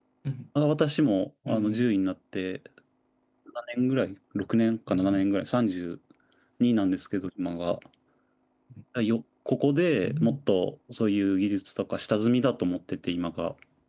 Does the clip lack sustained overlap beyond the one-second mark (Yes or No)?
Yes